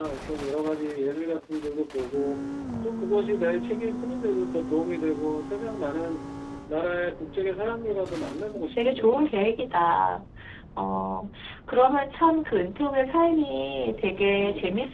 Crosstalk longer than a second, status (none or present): none